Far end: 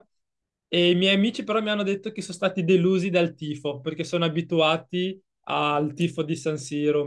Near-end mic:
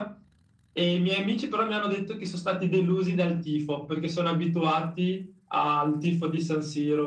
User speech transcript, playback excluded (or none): none